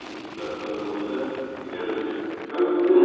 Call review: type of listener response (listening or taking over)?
listening